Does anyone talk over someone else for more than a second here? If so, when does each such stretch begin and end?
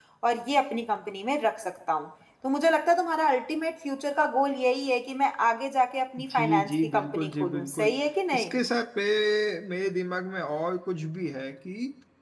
6.2-7.9

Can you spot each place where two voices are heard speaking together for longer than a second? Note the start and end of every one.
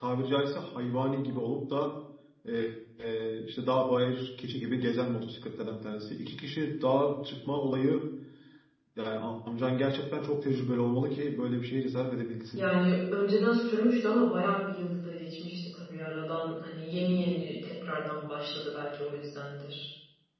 none

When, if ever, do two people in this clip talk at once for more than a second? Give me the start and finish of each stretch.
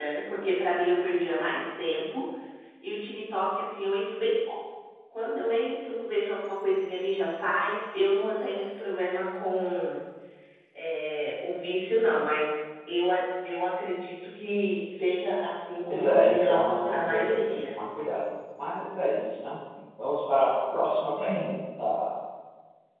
15.9-17.7

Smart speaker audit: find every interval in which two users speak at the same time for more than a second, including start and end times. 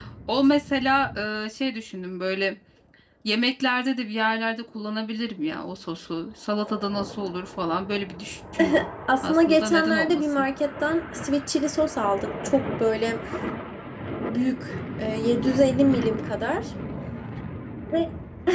9.2-10.4

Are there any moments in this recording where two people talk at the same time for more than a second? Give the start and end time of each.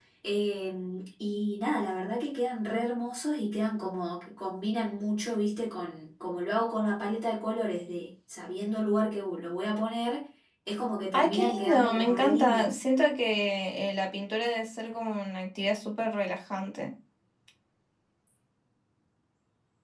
11.2-12.8

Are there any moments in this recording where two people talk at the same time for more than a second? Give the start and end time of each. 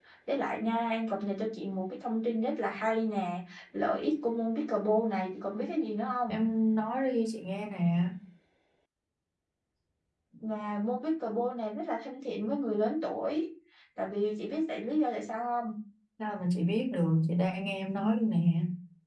none

